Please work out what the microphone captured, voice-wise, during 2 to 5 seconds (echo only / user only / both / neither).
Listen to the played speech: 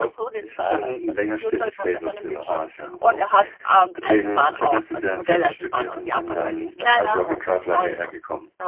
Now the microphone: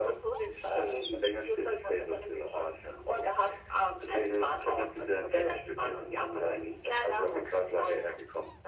echo only